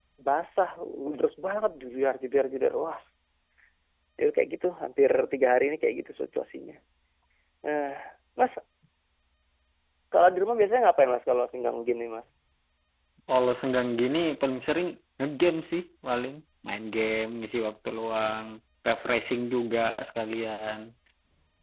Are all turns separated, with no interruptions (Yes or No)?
Yes